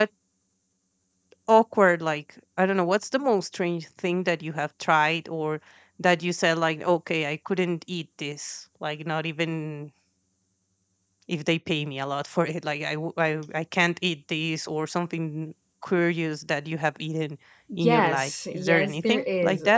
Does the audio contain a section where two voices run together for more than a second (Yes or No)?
Yes